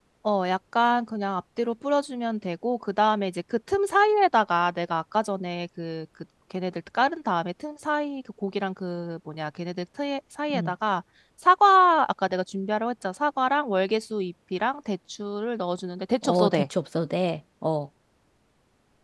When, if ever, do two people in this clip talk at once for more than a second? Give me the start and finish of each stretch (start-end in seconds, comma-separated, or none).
none